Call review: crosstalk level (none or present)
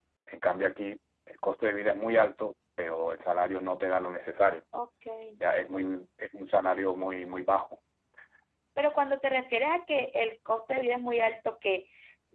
none